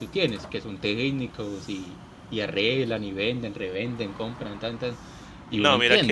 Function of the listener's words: taking over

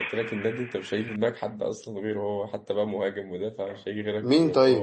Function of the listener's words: taking over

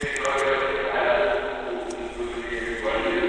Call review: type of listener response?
taking over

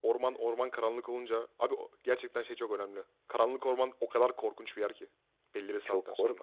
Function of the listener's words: taking over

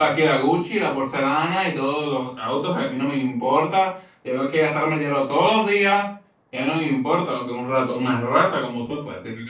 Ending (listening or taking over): taking over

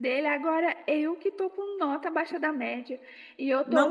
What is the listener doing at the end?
taking over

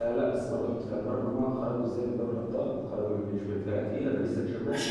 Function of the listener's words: taking over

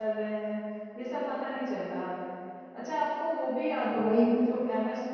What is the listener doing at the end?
listening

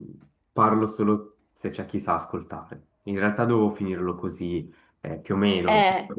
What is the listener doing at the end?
listening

